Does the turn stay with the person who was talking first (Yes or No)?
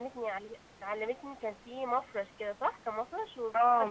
No